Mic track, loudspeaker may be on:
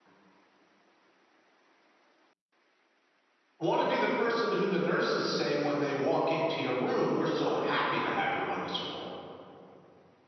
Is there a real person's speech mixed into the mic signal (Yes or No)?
Yes